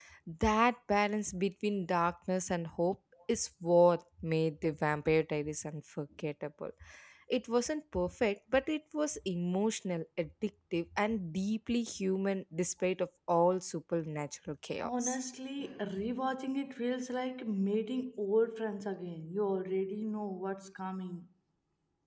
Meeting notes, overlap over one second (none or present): none